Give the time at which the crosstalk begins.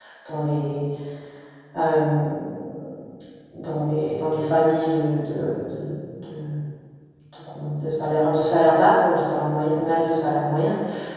none

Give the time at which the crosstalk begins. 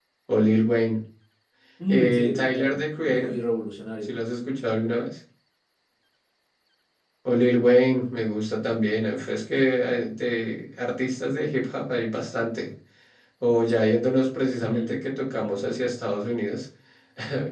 2 s

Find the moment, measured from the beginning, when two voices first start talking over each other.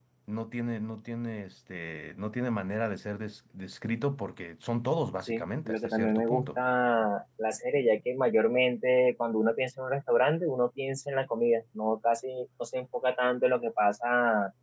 5 s

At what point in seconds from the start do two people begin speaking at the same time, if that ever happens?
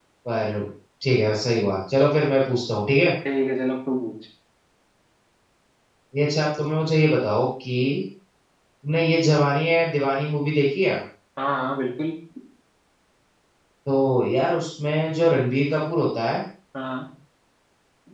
none

